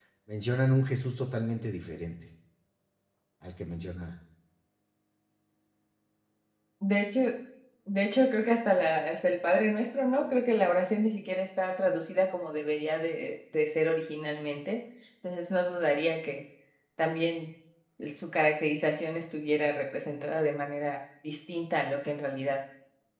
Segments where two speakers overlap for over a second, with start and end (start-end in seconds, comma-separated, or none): none